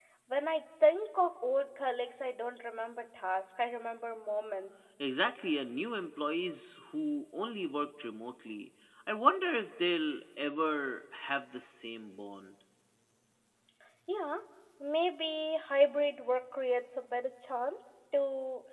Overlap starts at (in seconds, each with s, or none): none